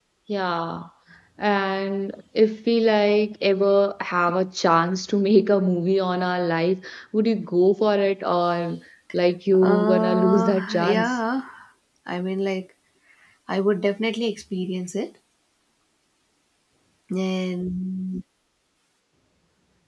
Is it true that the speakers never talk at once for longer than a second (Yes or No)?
No